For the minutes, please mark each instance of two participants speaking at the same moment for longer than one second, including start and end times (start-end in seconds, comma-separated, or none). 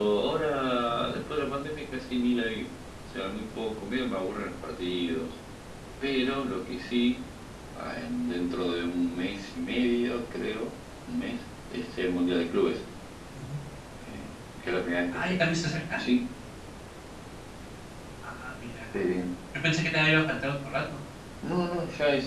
none